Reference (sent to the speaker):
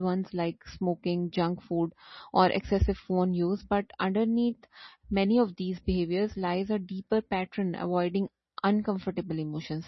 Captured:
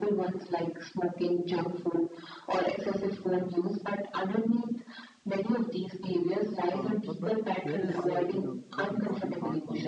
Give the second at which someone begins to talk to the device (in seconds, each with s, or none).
6.7 s